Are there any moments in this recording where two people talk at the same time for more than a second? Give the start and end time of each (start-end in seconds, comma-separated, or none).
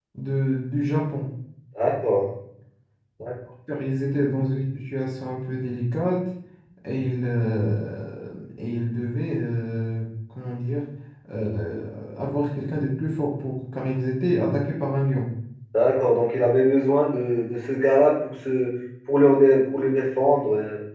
none